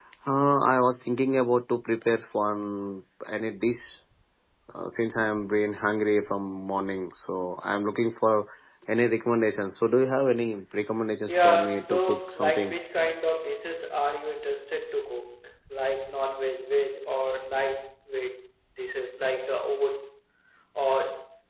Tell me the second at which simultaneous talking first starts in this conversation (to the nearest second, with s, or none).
11 s